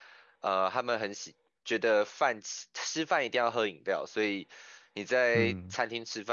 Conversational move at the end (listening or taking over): listening